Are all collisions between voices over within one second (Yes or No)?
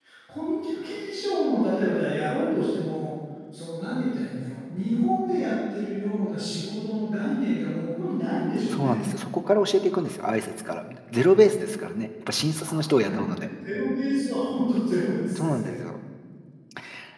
Yes